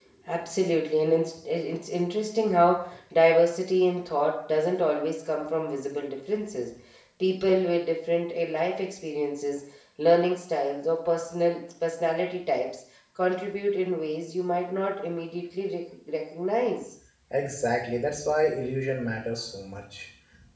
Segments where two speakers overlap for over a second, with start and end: none

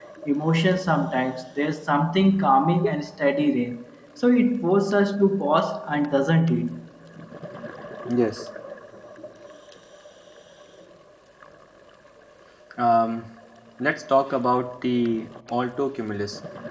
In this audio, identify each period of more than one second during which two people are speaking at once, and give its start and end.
none

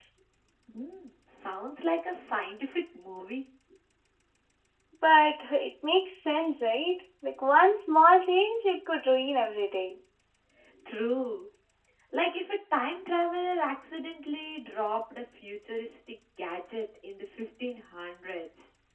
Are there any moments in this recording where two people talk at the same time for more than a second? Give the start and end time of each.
none

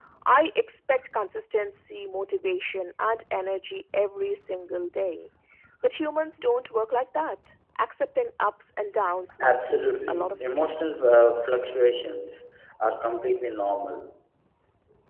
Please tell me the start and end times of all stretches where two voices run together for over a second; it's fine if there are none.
9.4-10.9

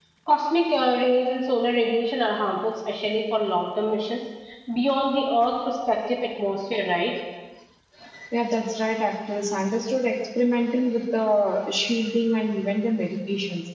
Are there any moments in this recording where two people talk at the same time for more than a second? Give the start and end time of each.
none

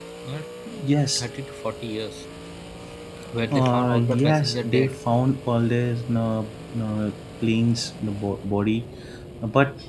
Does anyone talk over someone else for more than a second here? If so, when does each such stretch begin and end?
3.5-5.0

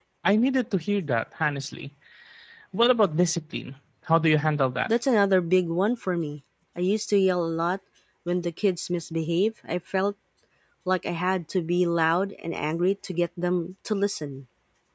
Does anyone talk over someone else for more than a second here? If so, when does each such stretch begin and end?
none

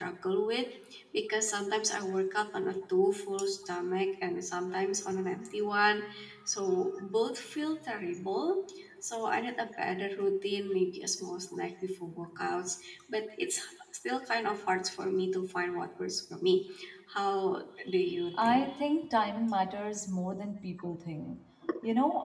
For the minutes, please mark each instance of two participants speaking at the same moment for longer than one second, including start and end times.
none

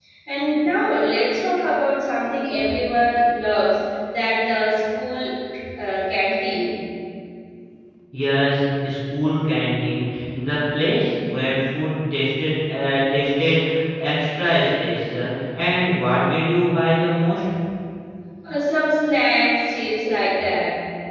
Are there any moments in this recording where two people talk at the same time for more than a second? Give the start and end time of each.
none

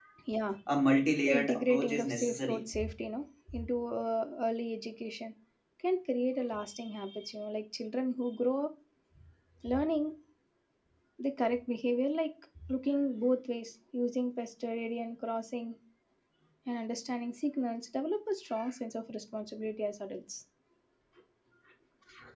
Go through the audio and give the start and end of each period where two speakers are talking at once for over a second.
1.2-2.6

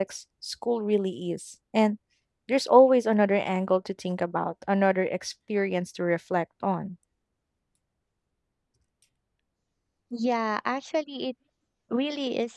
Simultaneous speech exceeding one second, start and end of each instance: none

